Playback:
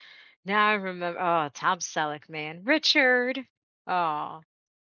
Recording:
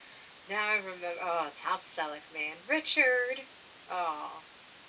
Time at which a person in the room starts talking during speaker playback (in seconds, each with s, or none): none